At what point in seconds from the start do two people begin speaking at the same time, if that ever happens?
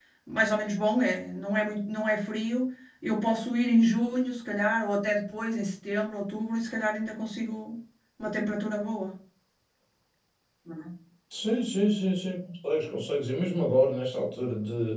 none

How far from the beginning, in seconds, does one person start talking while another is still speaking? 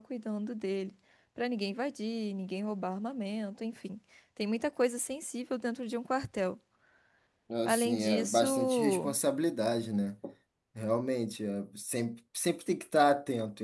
8 s

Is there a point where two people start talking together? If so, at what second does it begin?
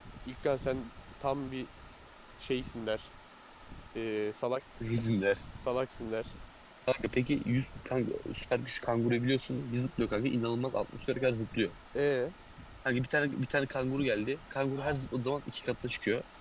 none

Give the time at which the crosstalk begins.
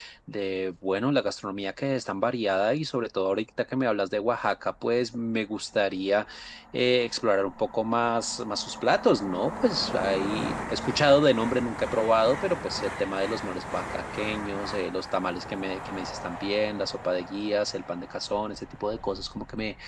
none

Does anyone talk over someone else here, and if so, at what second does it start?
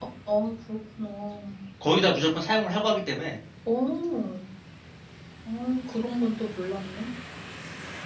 none

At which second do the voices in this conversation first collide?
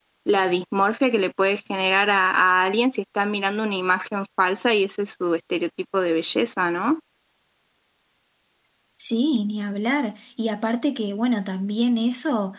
none

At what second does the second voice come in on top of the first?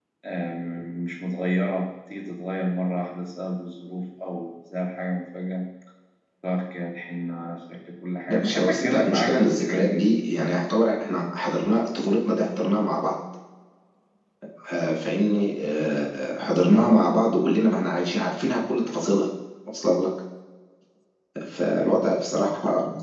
8 s

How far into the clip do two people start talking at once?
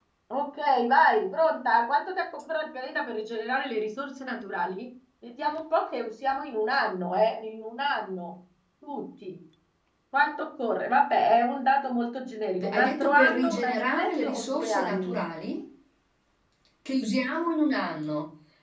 13 s

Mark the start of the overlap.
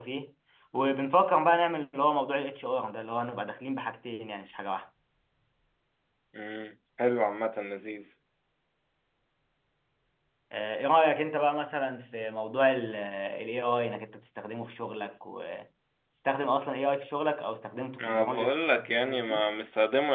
18 s

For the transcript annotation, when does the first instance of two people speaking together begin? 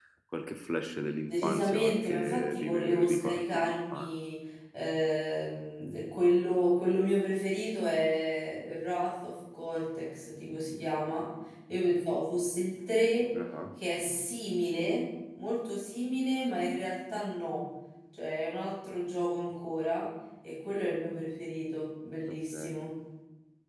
1 s

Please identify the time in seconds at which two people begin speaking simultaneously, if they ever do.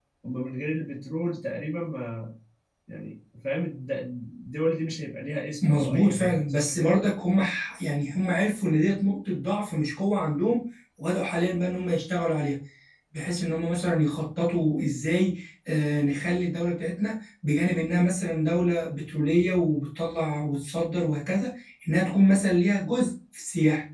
6 s

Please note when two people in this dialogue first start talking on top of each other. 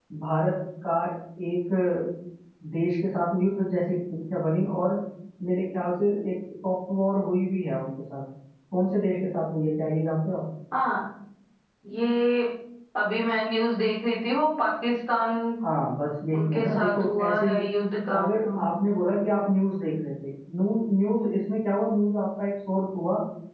16 s

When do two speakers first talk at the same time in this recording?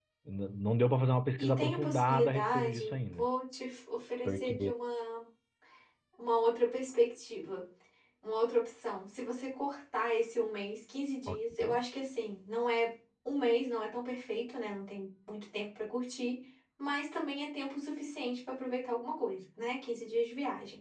1 s

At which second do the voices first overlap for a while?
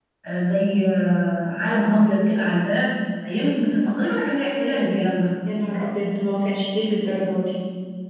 none

